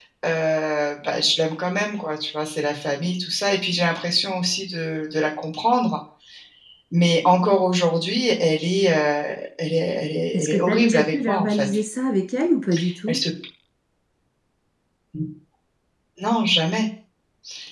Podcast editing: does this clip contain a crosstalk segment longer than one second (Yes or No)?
Yes